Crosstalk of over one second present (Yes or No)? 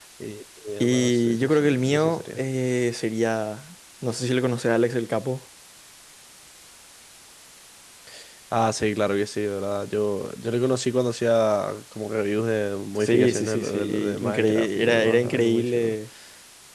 Yes